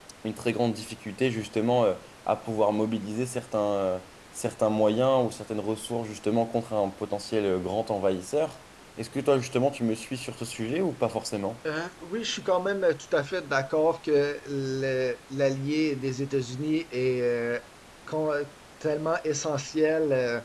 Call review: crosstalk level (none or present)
none